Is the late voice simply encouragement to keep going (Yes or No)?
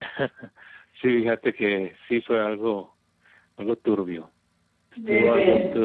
Yes